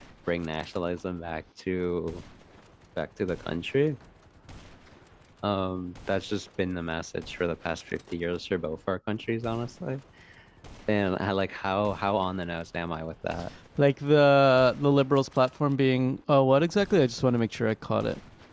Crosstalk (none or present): none